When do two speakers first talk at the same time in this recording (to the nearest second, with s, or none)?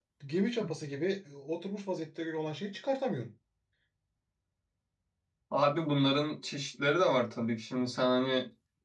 none